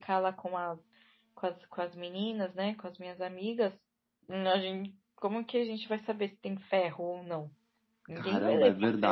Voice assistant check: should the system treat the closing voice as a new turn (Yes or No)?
Yes